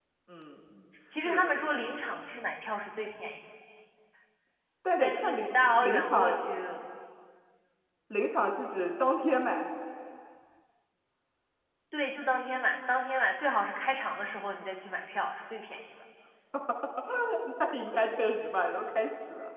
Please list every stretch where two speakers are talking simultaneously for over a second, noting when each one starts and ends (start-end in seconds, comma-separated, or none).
5.0-6.4